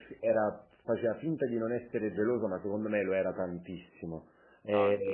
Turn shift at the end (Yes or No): No